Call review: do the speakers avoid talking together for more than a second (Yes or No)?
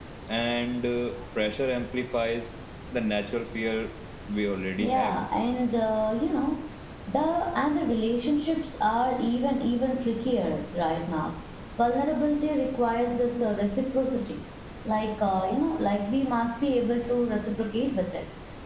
Yes